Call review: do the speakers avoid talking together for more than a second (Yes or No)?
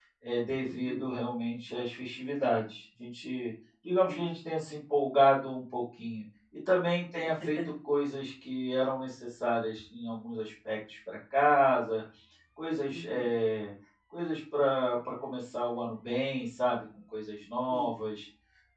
Yes